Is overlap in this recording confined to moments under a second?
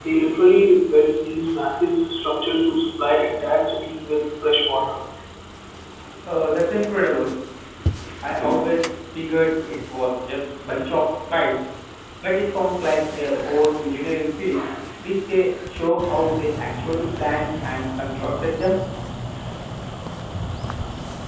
Yes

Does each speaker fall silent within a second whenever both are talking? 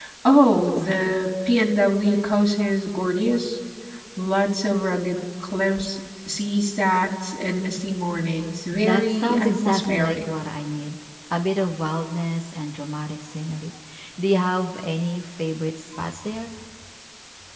No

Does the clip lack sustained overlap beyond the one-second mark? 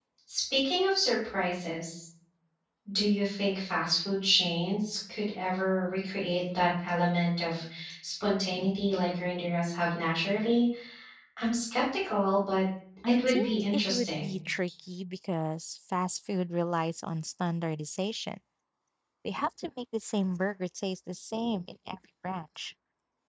No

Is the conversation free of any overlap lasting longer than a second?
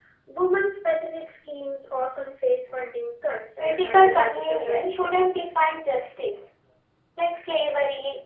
No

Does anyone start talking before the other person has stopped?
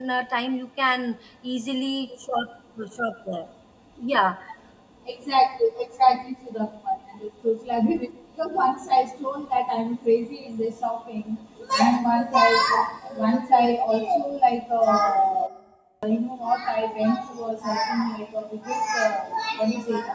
No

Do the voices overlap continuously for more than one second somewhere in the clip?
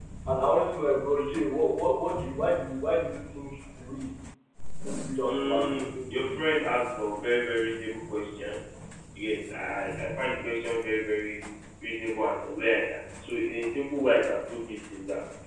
Yes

